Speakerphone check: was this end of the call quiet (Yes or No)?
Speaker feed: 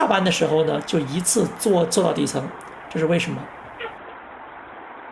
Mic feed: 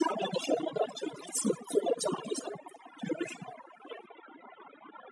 Yes